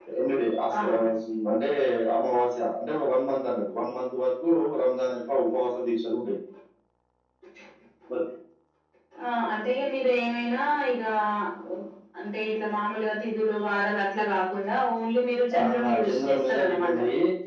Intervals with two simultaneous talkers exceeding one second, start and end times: 15.6-16.9

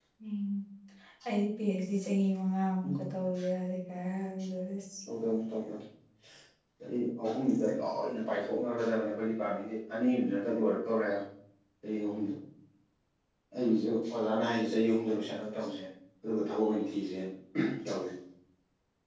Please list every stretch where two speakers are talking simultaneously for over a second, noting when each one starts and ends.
none

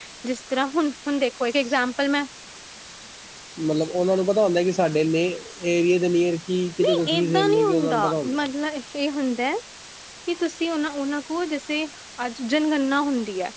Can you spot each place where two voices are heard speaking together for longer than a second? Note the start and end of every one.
6.8-8.4

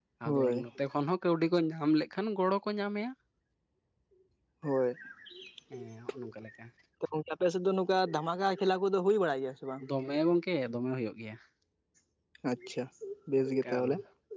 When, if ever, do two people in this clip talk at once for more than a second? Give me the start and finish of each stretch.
none

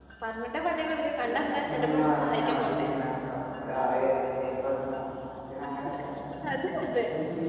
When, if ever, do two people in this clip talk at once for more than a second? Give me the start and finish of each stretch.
1.5-2.9

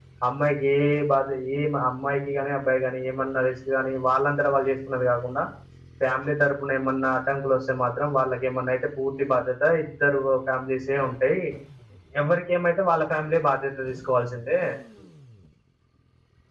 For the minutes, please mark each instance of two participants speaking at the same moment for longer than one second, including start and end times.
none

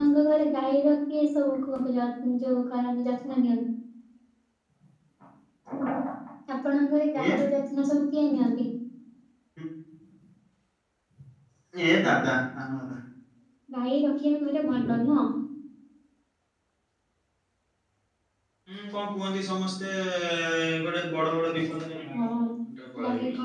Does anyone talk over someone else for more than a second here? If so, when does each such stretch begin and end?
none

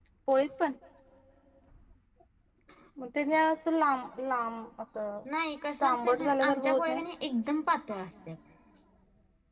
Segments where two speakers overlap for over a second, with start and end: 5.8-7.0

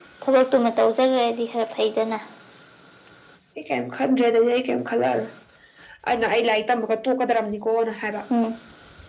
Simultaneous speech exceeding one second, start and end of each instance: none

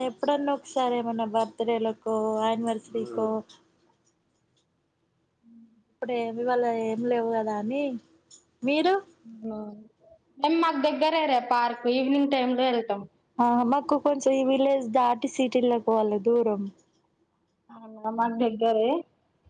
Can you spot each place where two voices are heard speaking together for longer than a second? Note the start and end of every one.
none

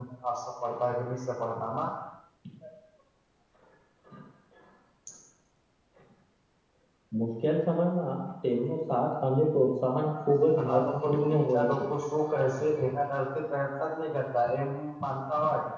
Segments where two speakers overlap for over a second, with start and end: 10.0-11.7

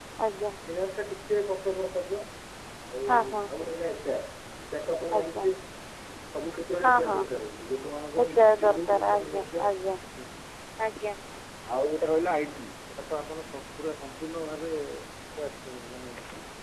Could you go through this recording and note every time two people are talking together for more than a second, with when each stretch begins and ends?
8.2-9.8

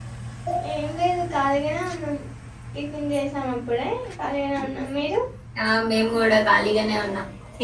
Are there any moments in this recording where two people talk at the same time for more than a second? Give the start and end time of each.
none

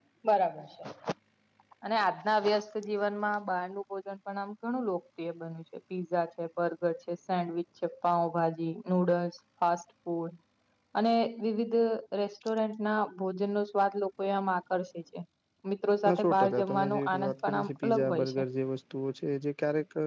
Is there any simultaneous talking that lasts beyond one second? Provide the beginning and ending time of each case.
16.0-18.4

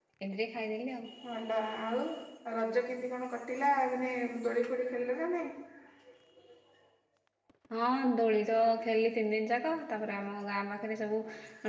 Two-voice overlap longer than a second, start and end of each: none

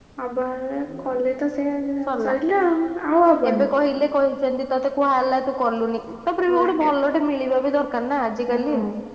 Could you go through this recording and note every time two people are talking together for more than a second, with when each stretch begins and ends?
none

